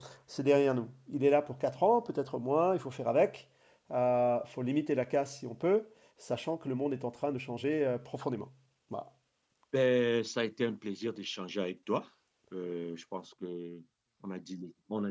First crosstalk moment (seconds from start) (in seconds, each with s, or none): none